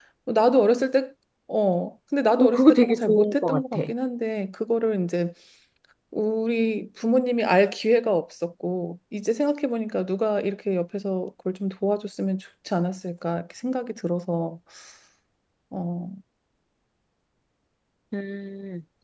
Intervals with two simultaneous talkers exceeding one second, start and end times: 2.4-3.8

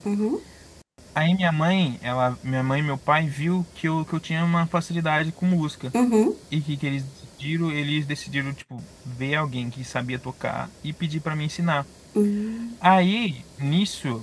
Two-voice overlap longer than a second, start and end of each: none

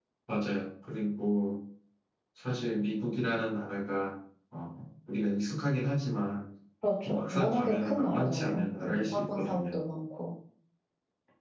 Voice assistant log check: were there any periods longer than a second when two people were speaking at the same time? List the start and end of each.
7.0-9.8

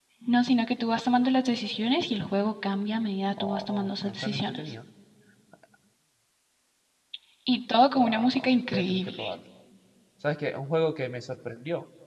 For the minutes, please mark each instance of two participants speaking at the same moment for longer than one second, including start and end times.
3.4-4.6, 8.0-9.3

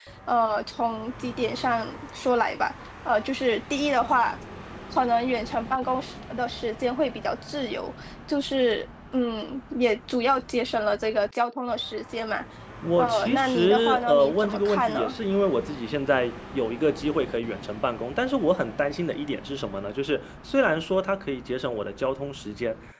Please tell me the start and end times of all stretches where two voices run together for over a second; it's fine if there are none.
13.0-15.2

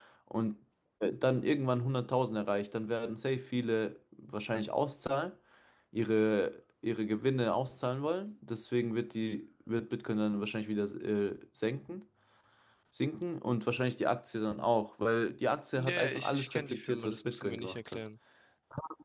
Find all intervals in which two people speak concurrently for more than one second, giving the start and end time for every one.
15.8-18.0

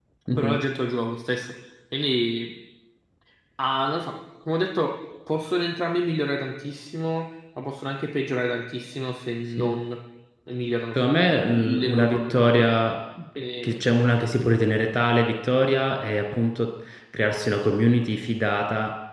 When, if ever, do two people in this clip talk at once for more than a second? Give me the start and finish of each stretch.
11.0-12.8

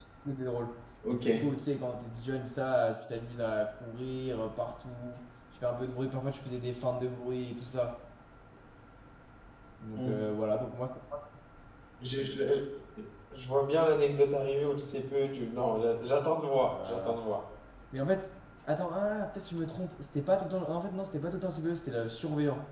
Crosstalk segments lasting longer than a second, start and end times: none

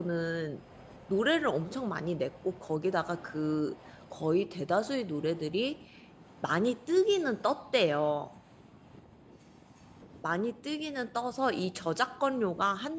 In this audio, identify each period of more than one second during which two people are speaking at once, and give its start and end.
none

